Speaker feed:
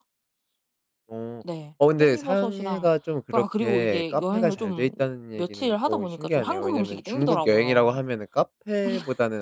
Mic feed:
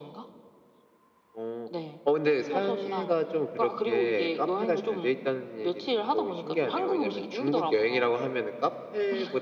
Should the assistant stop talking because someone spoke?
No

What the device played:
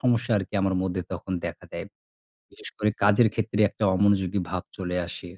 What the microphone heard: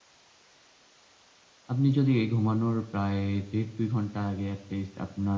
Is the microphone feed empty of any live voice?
No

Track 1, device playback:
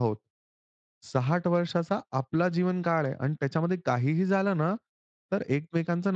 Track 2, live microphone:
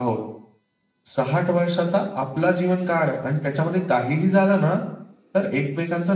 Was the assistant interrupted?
No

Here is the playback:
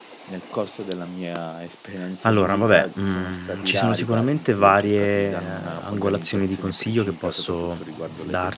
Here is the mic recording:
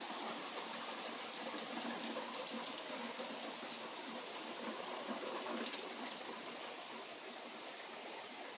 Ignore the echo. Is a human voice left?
No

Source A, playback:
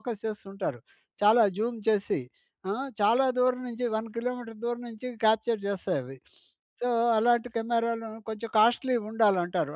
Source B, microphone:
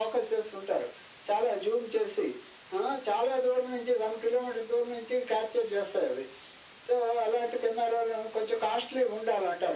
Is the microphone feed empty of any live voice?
Yes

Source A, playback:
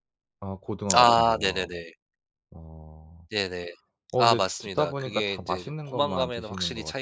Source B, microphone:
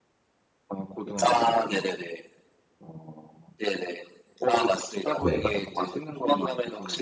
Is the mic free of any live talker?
No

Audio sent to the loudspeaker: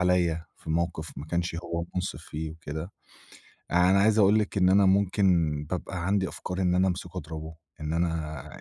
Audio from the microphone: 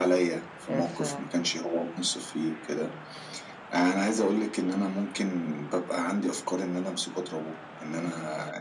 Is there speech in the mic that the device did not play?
Yes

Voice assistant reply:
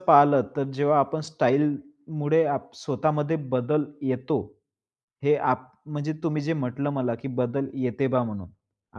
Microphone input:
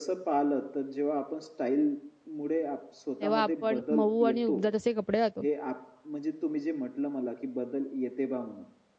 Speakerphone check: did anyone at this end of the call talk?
Yes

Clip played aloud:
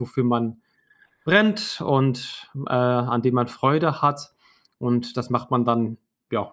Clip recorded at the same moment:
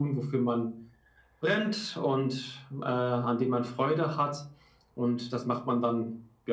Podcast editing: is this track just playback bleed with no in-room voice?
Yes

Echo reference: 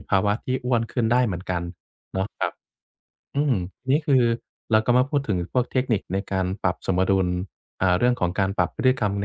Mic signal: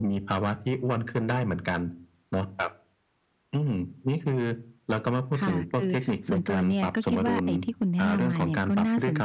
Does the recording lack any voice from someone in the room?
No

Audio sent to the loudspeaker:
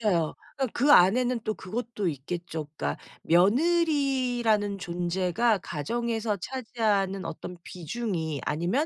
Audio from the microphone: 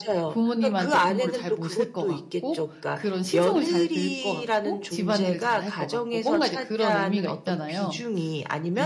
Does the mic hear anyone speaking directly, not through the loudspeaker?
Yes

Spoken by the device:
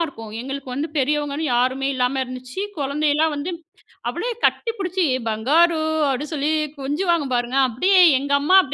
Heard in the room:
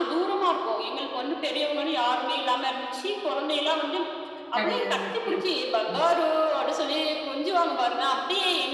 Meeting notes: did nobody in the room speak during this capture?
No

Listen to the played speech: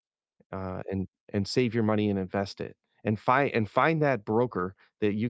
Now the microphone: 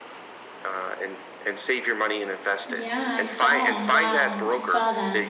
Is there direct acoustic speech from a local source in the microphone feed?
Yes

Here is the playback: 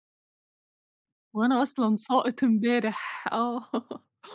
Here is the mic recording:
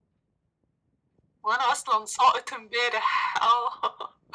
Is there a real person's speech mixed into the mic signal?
No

